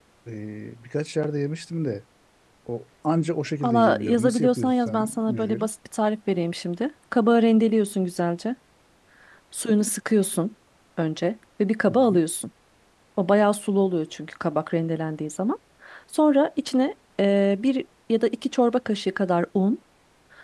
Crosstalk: present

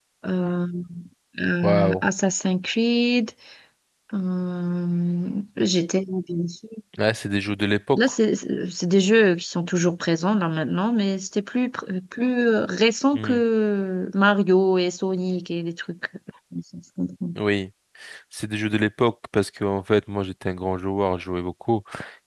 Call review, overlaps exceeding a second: none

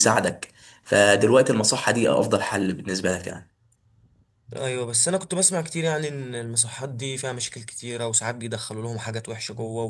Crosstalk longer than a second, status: none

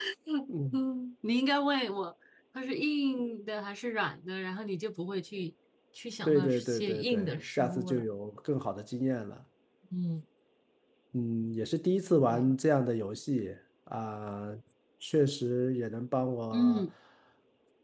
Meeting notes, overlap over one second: present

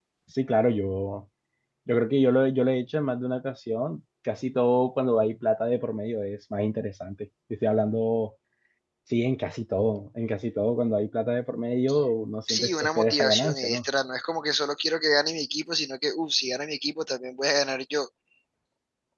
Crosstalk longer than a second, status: present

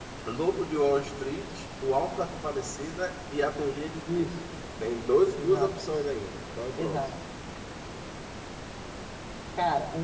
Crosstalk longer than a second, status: none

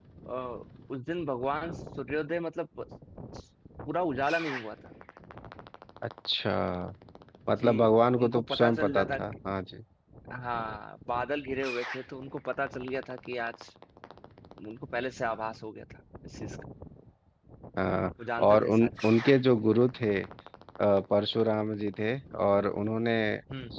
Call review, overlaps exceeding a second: present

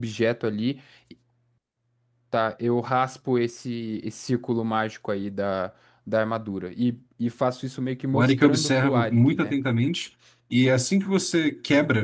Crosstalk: present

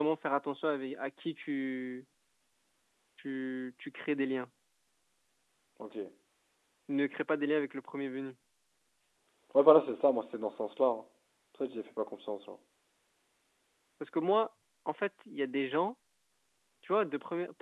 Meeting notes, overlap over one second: none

